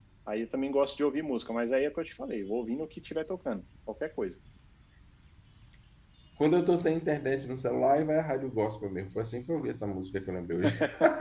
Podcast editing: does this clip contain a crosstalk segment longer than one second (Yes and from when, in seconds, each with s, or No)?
No